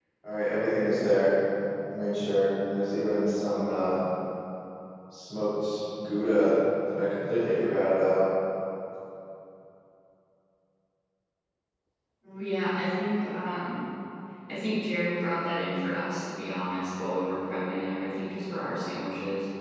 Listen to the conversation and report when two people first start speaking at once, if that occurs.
none

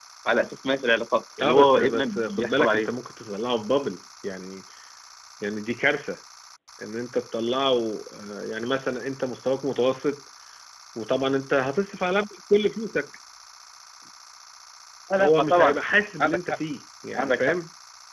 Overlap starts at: 1.4 s

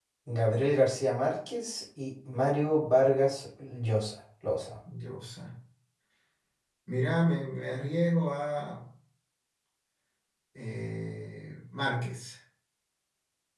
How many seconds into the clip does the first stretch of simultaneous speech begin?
none

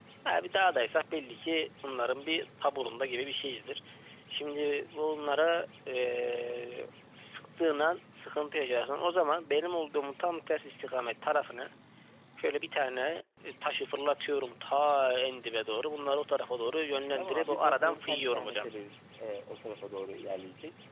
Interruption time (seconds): 17.2 s

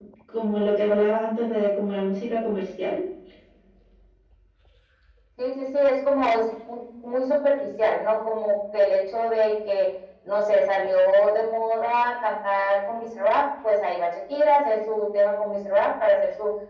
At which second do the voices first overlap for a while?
none

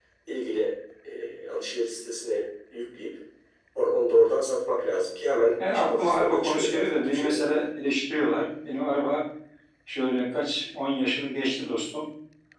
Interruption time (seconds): 5.6 s

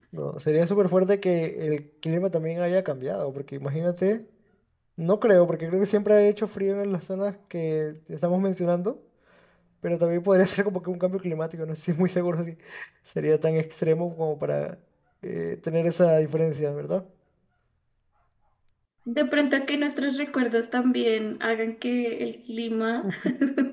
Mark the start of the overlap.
none

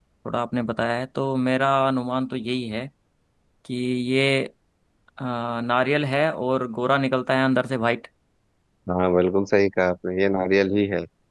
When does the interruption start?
none

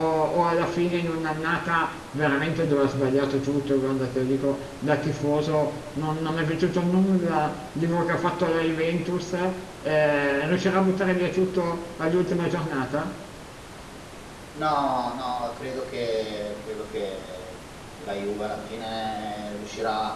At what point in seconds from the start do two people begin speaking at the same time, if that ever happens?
none

